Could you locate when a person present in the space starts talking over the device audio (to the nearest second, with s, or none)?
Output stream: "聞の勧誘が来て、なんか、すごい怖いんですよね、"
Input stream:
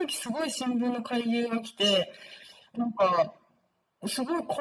none